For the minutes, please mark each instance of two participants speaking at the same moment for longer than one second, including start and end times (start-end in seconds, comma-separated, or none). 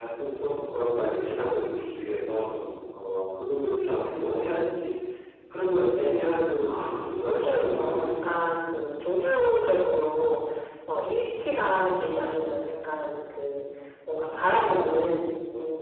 6.7-8.4